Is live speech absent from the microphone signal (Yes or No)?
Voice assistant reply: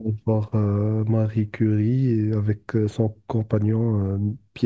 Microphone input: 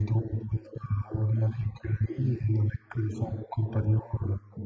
Yes